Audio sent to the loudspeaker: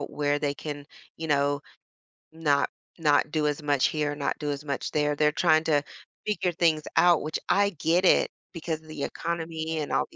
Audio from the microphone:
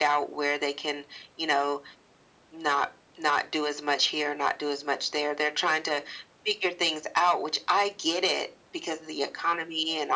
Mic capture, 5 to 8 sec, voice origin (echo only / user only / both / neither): echo only